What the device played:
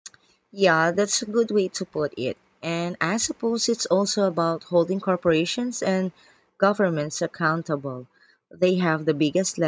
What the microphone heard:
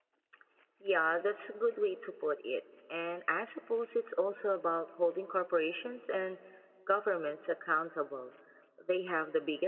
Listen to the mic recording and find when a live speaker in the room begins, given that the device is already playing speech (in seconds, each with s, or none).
none